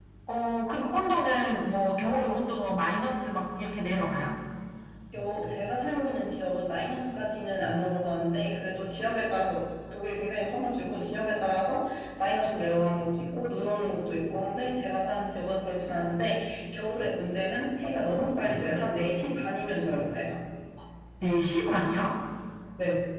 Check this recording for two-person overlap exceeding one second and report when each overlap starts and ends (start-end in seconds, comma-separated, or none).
none